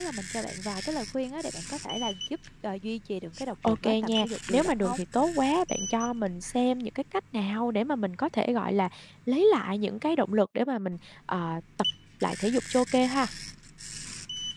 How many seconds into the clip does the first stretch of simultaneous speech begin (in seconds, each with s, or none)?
3.6 s